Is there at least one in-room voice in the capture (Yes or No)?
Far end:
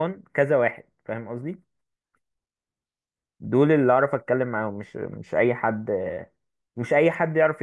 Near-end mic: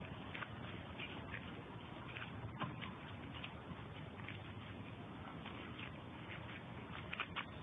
No